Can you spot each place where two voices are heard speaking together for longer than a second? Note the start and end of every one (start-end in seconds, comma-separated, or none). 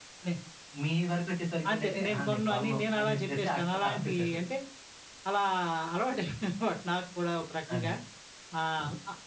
1.7-4.4